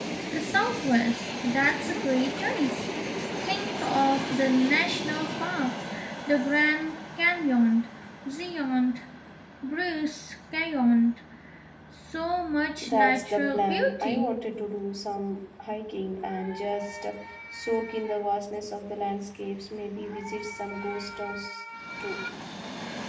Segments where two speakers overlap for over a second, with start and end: 12.8-14.2

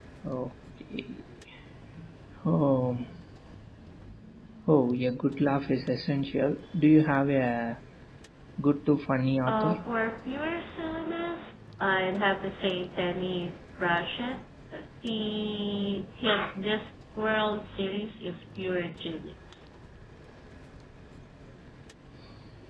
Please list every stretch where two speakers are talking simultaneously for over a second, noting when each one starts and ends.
none

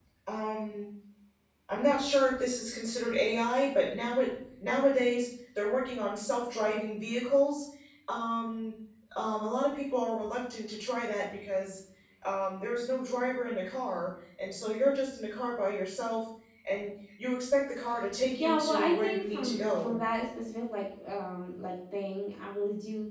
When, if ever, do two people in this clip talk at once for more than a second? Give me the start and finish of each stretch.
18.4-19.9

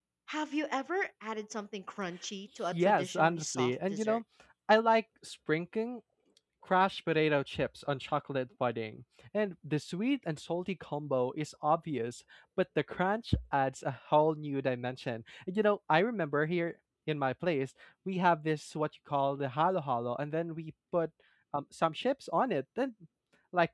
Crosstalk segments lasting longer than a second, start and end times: 2.7-4.2

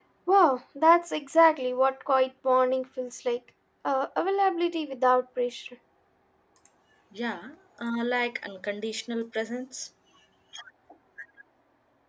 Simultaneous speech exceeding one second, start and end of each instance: none

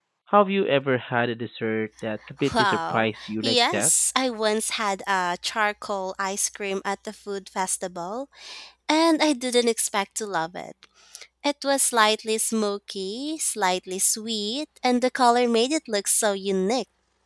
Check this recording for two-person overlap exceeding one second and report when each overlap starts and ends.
2.6-3.9

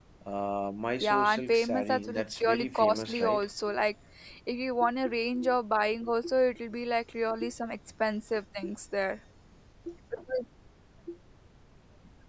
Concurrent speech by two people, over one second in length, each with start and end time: 1.0-3.5

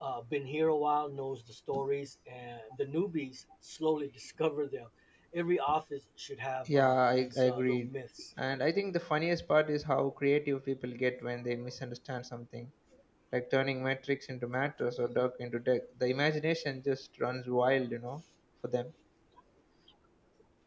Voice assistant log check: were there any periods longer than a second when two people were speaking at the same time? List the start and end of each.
6.7-7.9

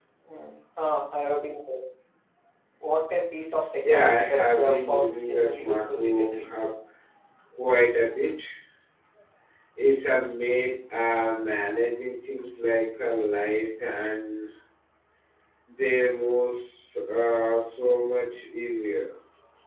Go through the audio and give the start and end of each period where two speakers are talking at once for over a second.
3.8-6.5

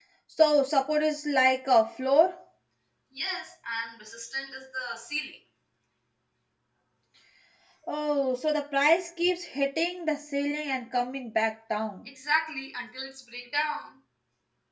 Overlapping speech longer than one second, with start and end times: none

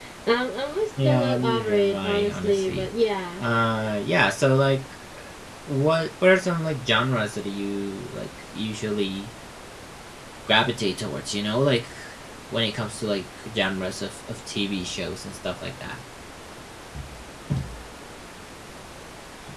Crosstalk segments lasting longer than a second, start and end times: 1.0-2.9

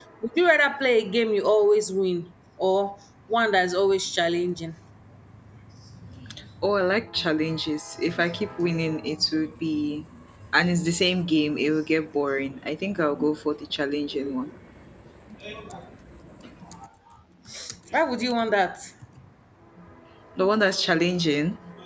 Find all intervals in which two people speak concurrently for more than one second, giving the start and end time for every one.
none

